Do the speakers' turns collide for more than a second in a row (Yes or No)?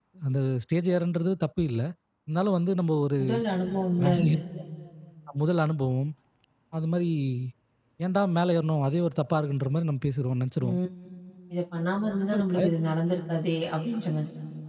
No